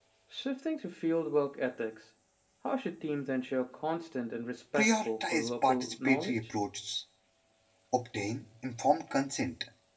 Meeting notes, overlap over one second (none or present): present